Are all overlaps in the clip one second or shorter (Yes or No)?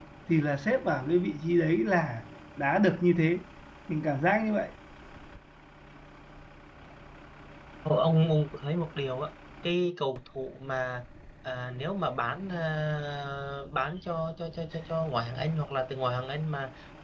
Yes